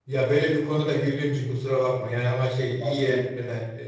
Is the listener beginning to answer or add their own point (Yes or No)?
No